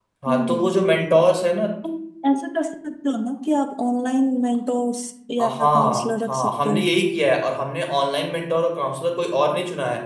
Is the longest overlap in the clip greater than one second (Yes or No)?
Yes